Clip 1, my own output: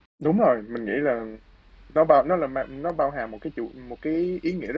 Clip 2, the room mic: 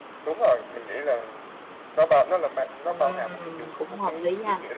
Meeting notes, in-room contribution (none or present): present